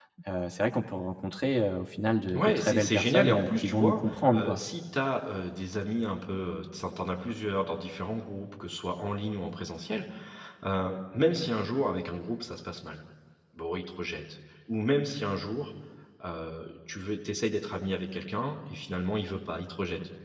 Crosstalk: present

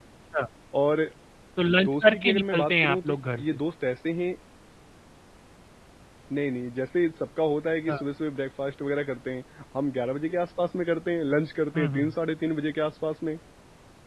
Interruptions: present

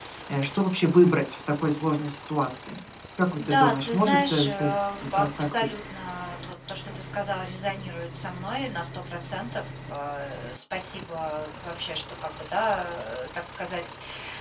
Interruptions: present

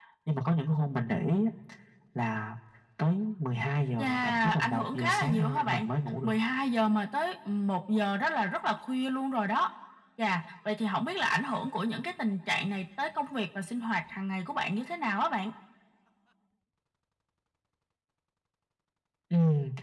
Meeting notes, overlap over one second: present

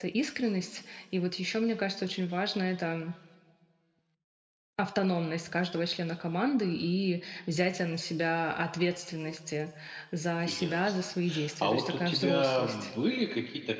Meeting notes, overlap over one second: present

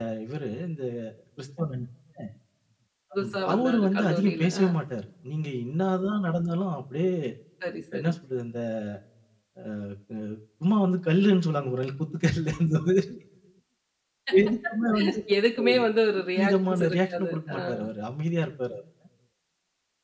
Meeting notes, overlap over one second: present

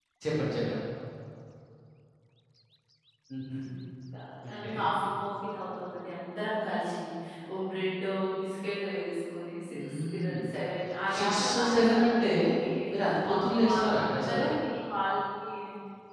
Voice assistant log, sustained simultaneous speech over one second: present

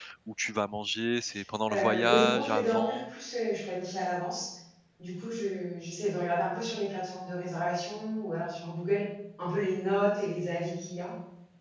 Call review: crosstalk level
present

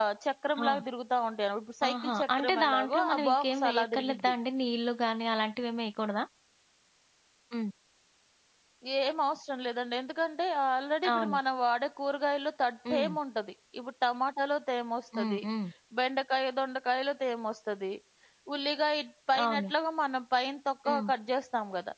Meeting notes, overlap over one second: present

